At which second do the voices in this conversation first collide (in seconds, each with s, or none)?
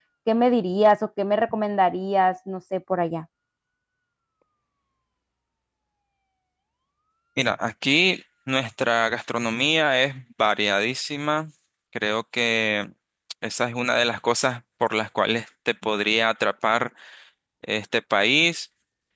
none